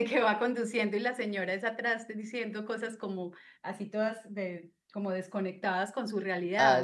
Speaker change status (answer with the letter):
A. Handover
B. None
A